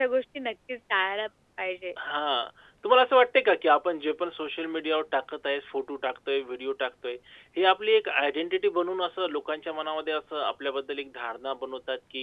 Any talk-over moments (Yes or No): No